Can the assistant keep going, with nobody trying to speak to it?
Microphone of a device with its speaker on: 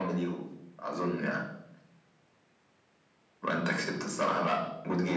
Yes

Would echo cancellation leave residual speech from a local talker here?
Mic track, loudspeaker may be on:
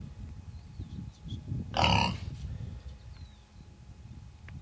No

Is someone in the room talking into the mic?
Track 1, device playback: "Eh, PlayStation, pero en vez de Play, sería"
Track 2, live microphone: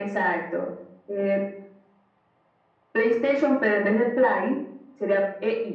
No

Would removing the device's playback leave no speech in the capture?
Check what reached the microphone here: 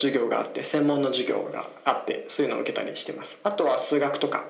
Yes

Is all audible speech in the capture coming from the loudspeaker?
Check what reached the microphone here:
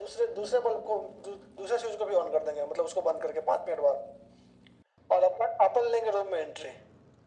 Yes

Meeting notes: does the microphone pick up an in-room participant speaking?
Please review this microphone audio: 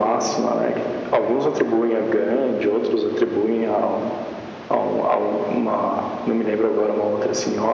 No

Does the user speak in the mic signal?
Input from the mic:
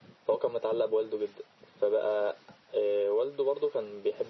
No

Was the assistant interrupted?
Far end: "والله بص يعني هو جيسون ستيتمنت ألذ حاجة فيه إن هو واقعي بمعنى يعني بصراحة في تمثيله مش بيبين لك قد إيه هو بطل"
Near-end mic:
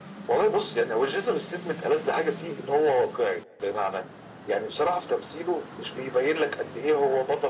No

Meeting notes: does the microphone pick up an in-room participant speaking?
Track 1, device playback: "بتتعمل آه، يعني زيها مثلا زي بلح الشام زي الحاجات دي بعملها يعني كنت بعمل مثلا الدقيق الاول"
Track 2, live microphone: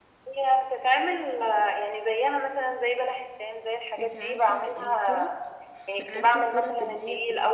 Yes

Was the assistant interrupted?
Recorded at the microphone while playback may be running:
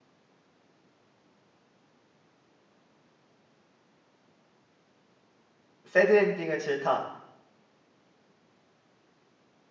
Yes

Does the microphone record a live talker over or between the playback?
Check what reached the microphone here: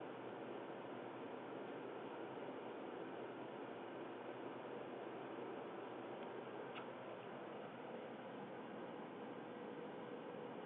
No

